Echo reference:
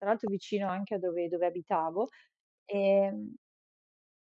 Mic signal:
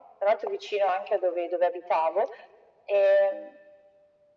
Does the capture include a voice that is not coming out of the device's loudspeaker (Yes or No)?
No